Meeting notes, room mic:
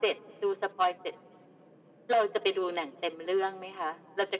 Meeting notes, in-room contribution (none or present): none